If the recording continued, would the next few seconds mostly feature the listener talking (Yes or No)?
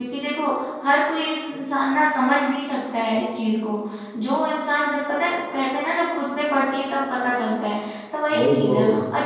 No